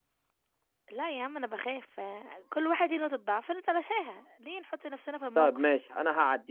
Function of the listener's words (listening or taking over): taking over